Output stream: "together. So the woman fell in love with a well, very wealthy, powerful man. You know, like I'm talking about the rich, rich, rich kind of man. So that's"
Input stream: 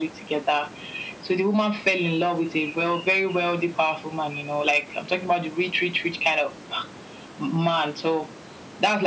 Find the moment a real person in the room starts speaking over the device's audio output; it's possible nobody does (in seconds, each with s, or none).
none